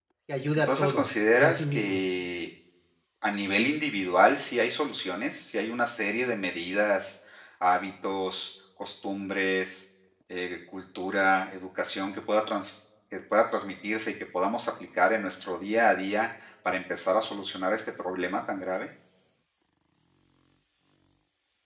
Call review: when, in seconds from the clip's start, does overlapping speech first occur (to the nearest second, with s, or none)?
1 s